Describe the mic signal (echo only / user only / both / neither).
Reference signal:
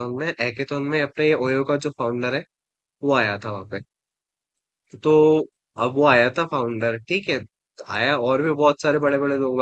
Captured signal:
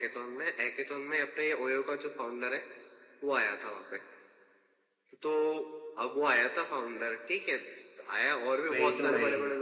both